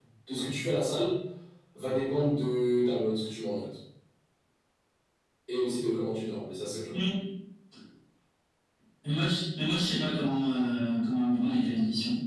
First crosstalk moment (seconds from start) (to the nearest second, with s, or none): none